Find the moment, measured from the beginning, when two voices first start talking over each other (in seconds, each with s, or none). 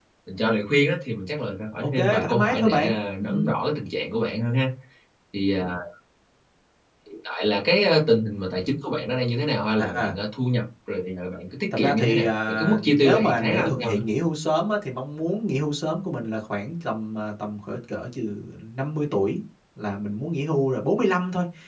1.9 s